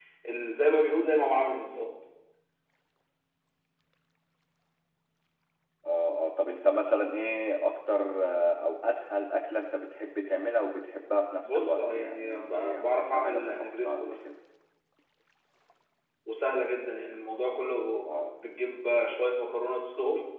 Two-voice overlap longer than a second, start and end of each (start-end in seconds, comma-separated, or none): 11.4-14.2